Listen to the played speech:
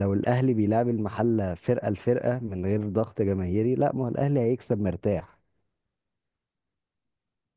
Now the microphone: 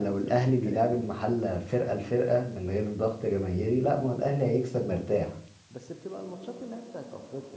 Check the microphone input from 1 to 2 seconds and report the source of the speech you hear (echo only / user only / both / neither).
both